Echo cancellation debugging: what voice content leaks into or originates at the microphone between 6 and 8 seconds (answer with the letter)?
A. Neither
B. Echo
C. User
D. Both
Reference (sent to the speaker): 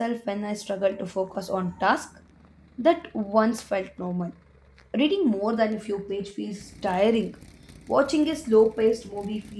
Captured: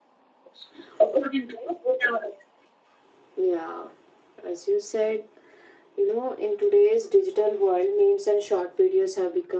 C